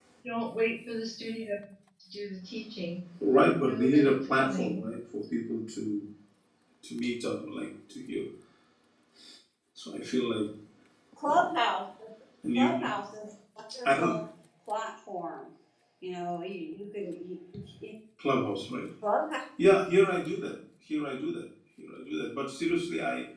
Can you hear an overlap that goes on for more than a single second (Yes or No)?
Yes